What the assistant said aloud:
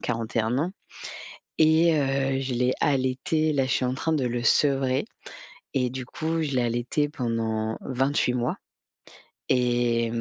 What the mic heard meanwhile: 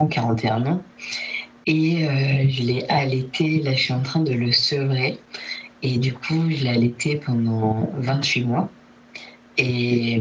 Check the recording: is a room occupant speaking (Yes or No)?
No